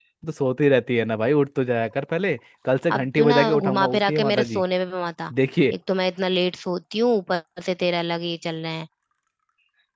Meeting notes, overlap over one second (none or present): present